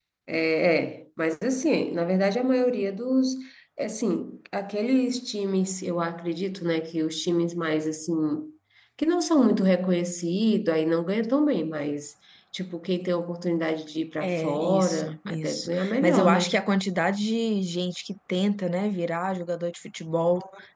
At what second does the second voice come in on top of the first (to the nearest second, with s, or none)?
14 s